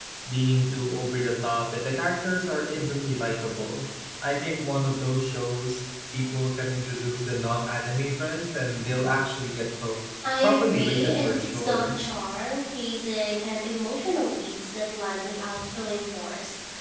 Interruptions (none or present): present